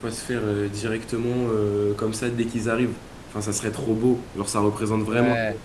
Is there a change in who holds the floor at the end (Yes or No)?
No